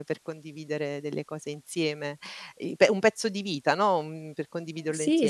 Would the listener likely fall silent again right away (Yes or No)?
No